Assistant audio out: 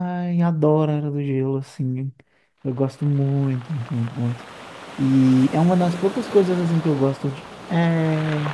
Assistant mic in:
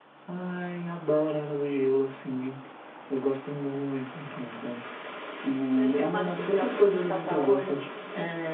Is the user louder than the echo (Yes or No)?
No